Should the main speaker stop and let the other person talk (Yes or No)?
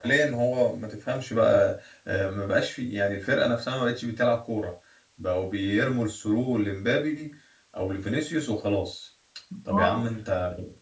No